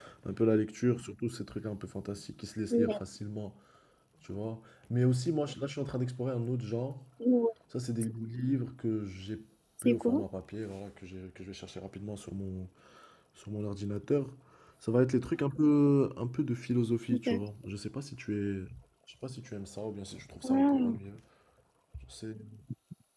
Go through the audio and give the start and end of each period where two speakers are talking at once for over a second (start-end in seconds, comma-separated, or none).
none